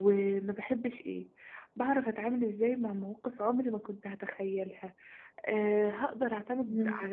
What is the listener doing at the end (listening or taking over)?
listening